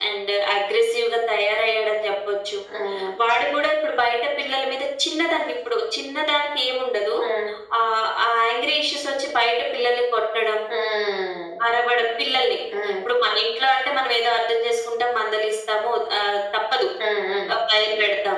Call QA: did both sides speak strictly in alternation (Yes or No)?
Yes